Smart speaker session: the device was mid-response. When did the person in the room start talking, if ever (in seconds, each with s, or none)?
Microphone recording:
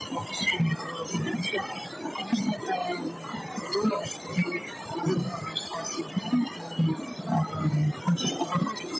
none